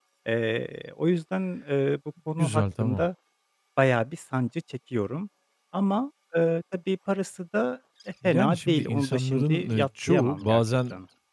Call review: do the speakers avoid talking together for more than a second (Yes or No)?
No